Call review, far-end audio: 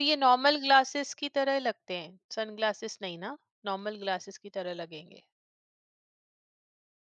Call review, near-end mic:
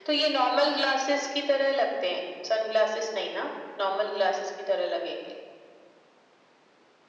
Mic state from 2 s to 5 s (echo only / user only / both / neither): echo only